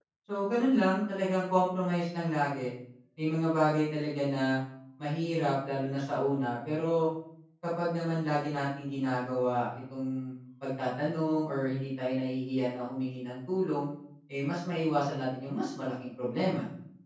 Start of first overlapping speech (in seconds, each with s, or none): none